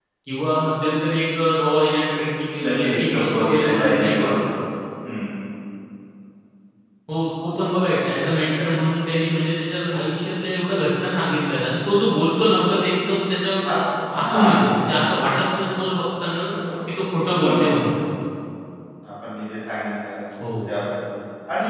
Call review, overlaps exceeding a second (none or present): present